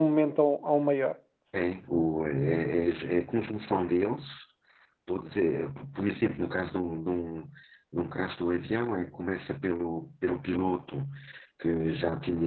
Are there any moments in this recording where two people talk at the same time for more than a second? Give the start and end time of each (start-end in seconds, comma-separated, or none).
none